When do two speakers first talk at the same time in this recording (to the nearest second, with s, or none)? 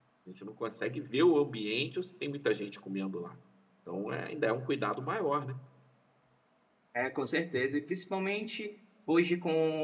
none